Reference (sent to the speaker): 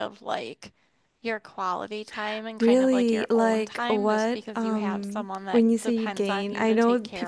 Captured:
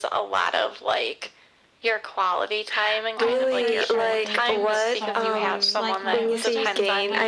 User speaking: Yes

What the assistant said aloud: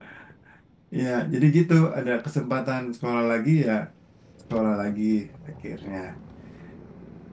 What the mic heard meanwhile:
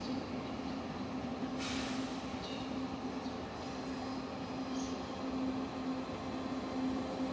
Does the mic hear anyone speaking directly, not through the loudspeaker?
No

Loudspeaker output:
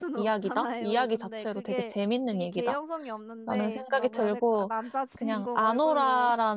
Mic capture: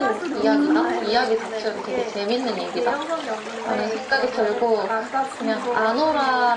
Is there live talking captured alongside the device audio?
Yes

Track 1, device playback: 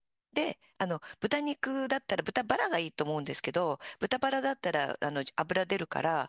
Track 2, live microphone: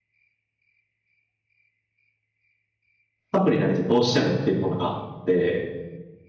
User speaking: Yes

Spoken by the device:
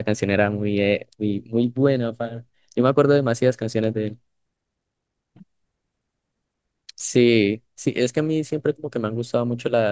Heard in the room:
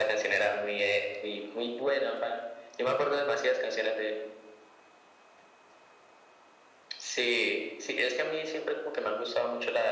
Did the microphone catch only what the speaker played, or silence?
Yes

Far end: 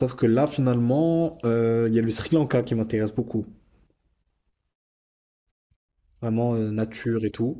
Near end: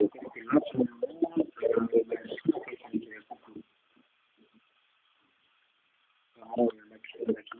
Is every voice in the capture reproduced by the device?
Yes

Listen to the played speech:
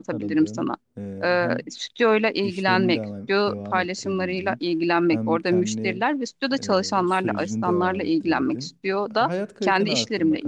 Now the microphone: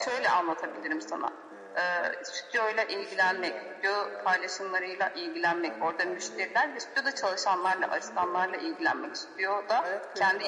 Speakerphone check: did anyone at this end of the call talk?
No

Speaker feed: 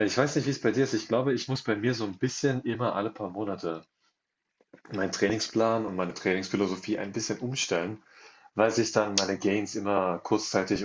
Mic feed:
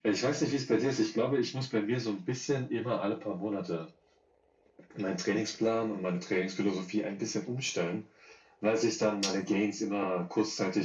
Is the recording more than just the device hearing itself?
No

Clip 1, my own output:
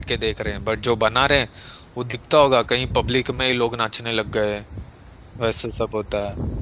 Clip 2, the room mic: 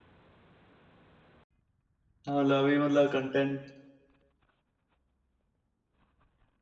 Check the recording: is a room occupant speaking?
Yes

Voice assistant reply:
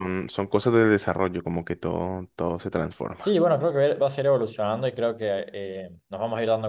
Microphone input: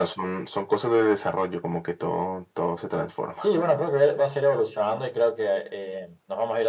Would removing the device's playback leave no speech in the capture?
Yes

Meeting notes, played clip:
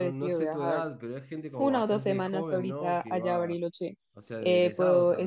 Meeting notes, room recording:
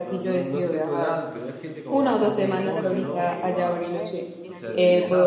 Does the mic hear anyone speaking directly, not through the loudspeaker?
Yes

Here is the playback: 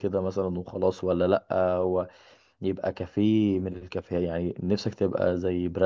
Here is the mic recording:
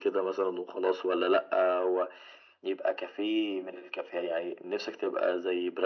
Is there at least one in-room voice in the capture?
No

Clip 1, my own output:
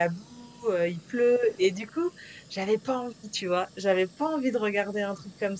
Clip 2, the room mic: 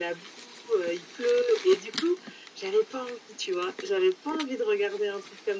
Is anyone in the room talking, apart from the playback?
No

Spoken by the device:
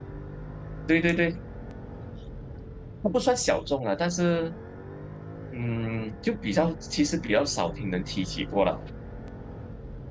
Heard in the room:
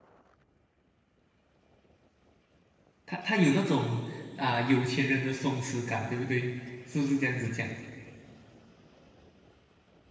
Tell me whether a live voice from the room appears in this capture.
Yes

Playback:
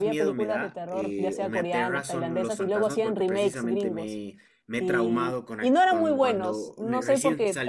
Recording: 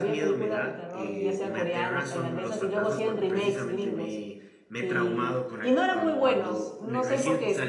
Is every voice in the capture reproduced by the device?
Yes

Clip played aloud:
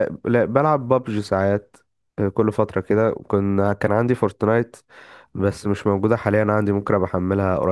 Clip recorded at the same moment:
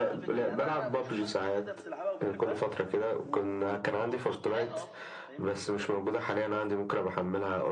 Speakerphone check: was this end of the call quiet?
No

